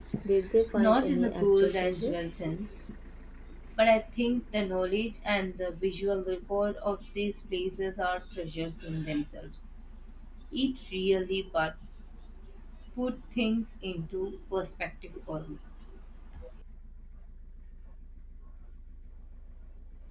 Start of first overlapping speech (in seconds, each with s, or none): 0.7 s